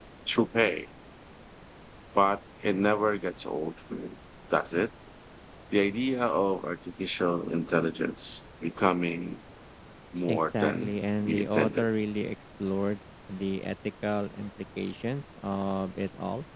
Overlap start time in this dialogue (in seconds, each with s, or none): 10.3 s